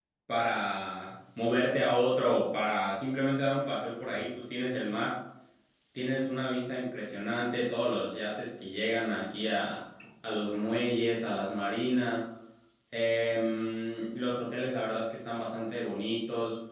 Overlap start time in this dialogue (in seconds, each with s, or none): none